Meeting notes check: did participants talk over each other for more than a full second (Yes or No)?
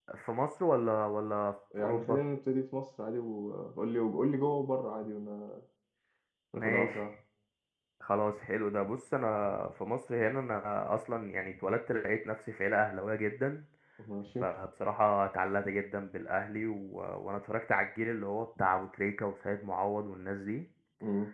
No